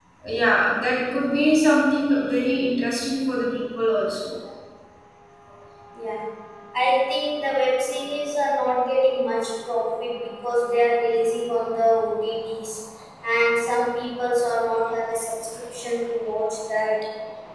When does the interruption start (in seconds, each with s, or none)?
none